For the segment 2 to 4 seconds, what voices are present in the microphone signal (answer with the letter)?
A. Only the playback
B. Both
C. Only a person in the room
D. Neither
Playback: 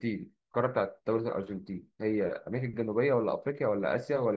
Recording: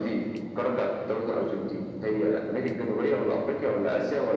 A